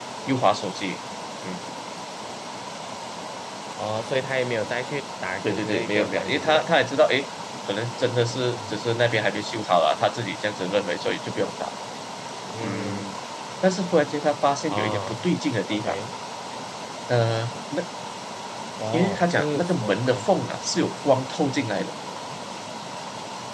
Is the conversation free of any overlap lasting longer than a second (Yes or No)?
No